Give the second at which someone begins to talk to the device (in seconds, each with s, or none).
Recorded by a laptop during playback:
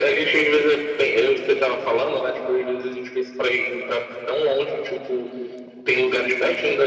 none